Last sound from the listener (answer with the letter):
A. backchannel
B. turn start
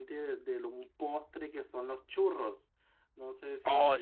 B